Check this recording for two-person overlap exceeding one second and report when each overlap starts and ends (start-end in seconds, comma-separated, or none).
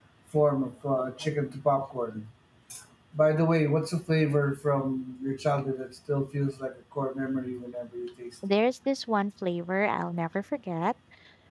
none